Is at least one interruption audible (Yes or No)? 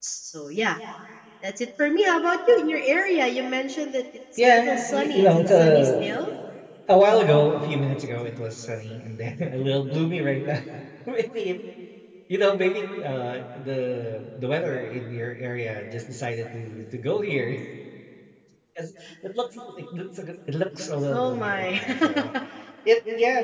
Yes